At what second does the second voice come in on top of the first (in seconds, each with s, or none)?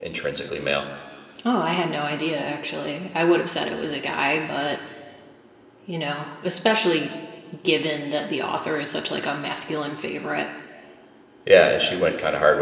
none